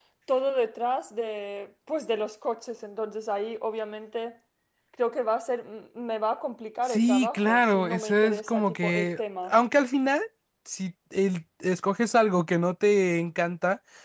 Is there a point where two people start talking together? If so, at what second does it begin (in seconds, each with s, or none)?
6.9 s